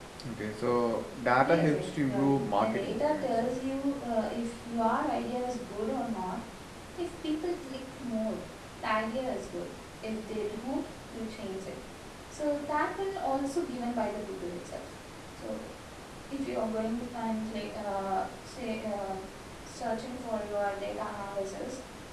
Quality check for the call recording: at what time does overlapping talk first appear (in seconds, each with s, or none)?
1.4 s